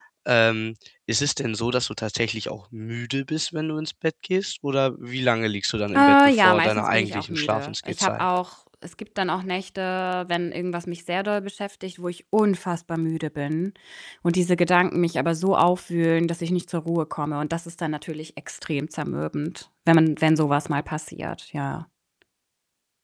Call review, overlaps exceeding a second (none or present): present